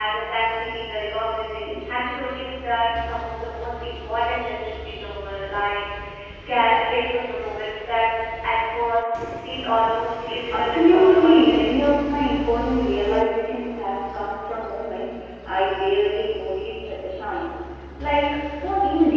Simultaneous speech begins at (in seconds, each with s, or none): 10.5 s